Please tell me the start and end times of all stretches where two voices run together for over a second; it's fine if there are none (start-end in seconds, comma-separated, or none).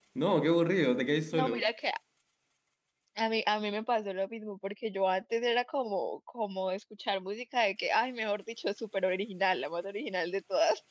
none